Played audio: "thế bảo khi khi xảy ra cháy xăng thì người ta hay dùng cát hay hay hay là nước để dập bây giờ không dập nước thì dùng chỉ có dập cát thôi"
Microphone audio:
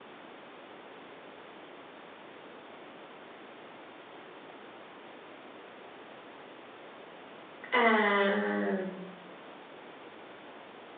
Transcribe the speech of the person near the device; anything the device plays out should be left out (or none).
À,